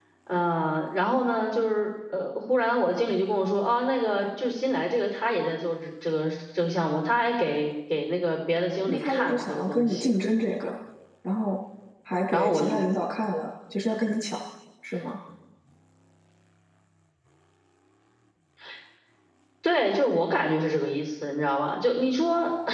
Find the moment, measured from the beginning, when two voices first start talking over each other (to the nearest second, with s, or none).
9 s